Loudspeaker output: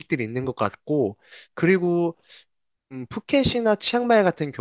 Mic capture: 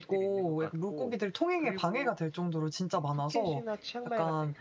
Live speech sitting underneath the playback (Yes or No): No